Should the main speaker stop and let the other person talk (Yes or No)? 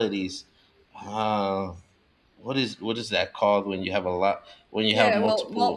Yes